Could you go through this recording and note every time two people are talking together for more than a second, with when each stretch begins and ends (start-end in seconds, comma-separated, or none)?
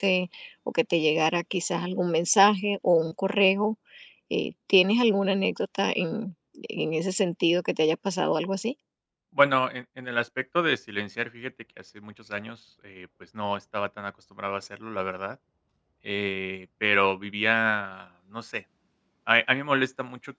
none